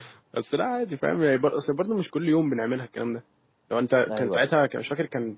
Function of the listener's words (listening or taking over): listening